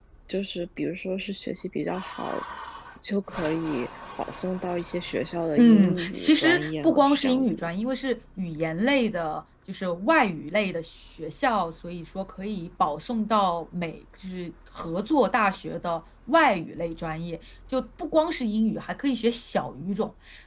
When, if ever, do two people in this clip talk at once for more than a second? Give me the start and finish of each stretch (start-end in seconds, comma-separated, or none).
5.6-7.7